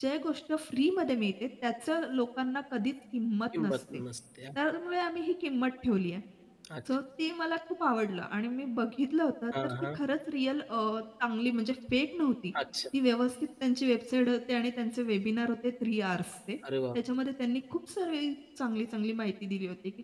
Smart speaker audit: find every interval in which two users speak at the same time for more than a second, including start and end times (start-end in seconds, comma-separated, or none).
none